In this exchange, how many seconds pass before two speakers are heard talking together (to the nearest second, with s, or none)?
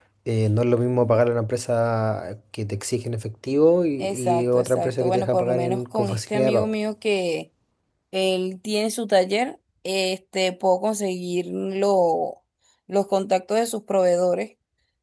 4 s